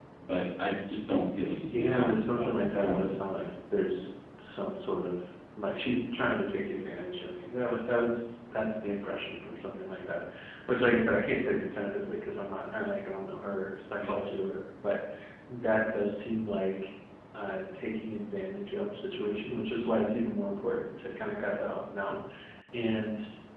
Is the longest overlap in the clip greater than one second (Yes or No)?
Yes